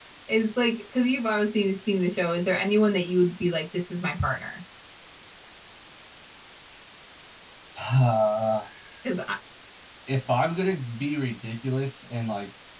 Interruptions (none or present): none